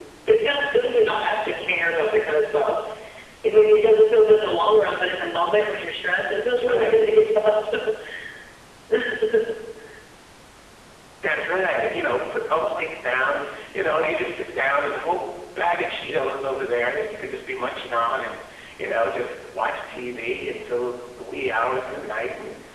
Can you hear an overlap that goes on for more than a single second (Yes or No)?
No